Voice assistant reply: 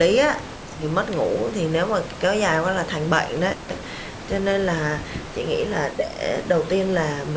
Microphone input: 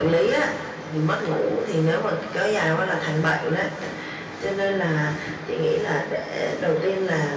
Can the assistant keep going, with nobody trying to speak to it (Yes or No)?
Yes